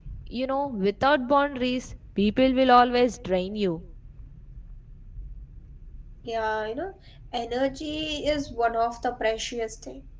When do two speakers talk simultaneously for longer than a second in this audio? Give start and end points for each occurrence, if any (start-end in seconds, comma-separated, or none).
none